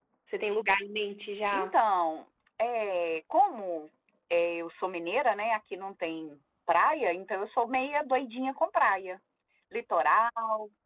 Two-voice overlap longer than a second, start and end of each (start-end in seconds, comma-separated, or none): none